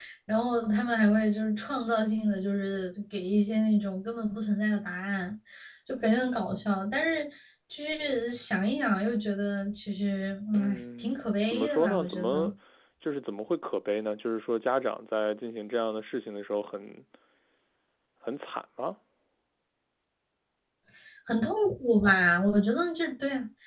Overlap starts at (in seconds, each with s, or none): 10.5 s